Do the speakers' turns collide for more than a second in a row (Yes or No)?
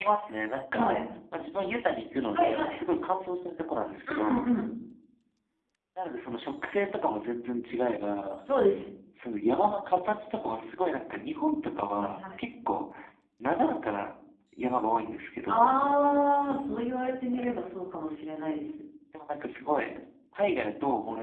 No